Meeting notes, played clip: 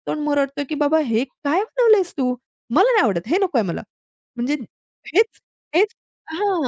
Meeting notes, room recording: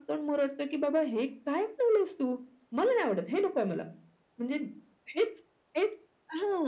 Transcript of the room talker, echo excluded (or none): none